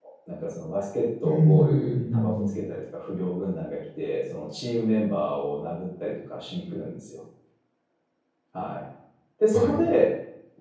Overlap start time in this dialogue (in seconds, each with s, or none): 1.2 s